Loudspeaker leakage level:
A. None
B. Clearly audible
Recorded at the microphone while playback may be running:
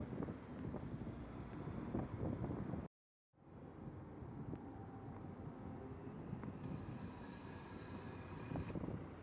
A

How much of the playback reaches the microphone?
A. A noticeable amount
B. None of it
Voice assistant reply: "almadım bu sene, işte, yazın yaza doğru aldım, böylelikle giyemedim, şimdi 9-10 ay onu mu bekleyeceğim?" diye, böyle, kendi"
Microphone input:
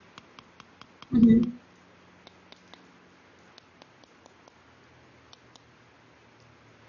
B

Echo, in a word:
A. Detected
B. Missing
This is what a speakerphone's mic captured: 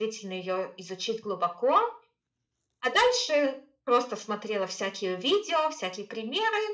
A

